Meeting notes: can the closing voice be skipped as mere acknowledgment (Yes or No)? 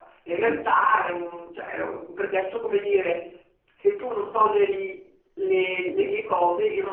No